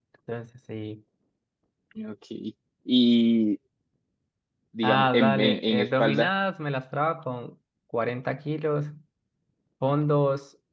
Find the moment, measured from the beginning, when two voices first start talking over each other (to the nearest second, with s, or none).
5 s